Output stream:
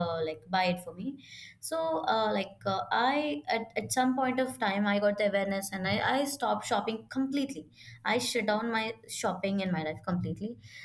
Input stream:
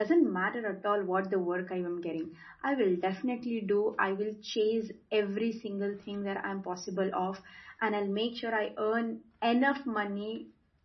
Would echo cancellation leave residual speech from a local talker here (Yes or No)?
Yes